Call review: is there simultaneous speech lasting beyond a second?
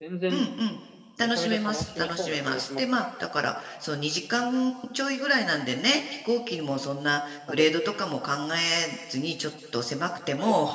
Yes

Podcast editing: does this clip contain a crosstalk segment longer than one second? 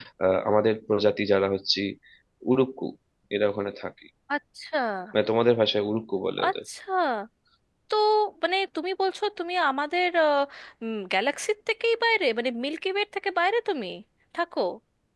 No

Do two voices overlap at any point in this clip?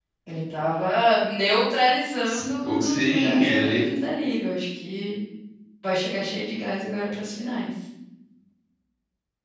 Yes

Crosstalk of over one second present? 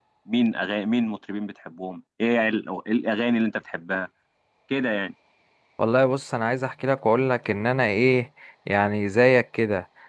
No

